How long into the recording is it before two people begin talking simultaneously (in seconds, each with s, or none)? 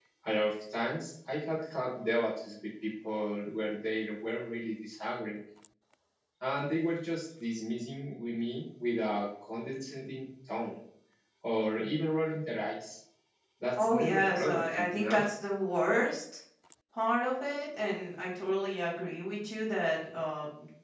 13.8 s